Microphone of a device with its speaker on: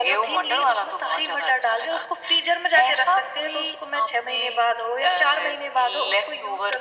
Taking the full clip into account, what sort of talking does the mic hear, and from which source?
echo only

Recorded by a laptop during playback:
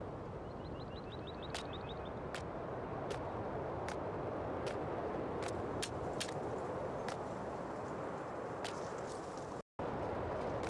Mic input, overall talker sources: neither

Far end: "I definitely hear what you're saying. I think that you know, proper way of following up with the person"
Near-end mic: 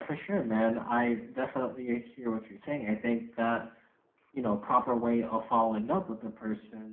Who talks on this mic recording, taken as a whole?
echo only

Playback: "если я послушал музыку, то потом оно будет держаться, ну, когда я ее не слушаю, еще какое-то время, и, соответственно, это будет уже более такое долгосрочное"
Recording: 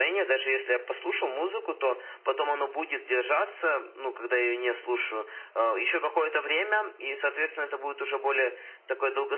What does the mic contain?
echo only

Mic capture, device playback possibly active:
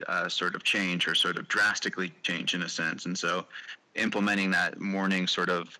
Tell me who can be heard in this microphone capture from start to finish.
echo only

